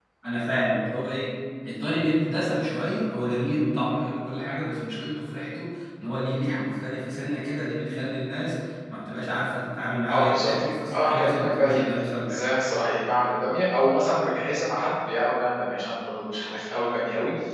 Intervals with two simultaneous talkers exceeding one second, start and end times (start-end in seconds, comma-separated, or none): 10.1-11.8